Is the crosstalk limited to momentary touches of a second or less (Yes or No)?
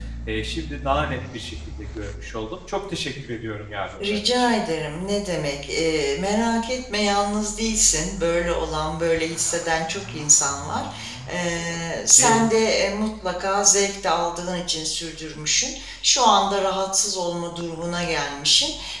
Yes